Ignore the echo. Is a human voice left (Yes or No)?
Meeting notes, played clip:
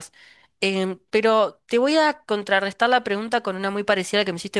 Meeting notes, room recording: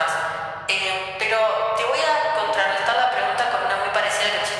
No